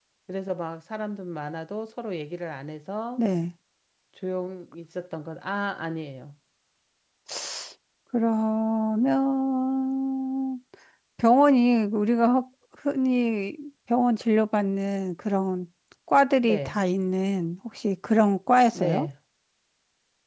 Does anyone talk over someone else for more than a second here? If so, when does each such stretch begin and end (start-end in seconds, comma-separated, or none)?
none